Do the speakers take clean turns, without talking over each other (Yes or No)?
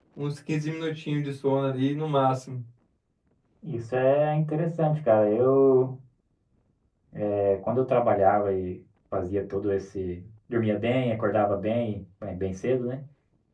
Yes